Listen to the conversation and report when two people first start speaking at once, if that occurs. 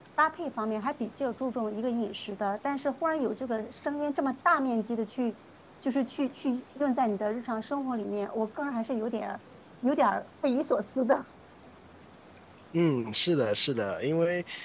none

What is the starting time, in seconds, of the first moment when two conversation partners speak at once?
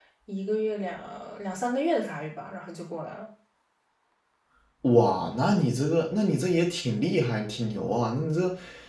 none

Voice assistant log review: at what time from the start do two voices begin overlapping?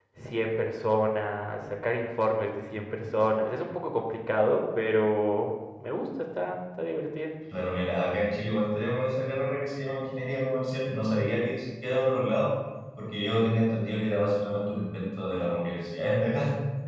none

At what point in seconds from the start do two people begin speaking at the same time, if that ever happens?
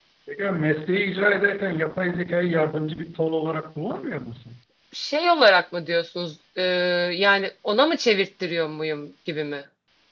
none

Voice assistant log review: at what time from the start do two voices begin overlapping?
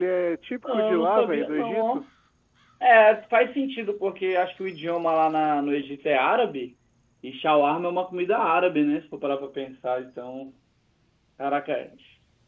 0.6 s

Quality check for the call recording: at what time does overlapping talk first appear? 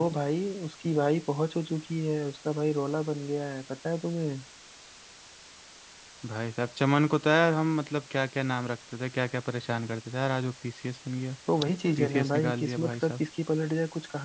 12.0 s

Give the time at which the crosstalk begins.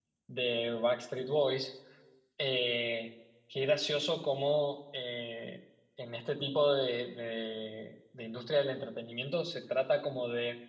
none

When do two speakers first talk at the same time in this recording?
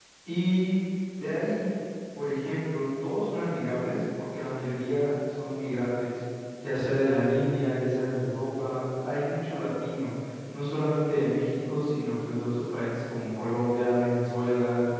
none

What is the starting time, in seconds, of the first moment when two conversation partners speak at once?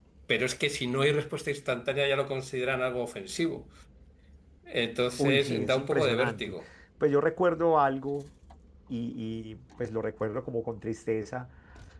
5.2 s

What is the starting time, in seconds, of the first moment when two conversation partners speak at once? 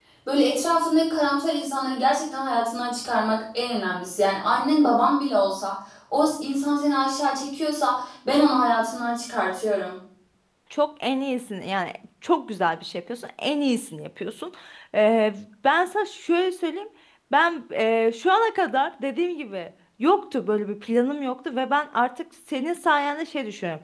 none

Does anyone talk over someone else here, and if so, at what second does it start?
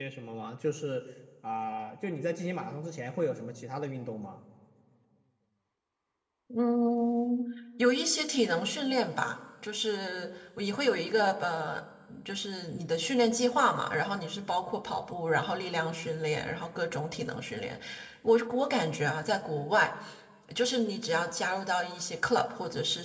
none

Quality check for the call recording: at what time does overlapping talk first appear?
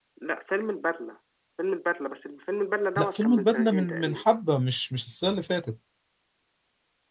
3.0 s

